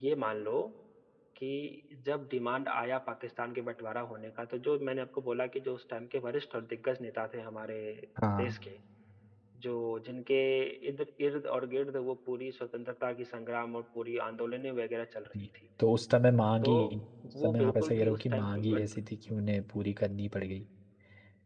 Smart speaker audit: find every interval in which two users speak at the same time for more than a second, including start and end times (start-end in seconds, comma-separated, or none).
17.4-18.8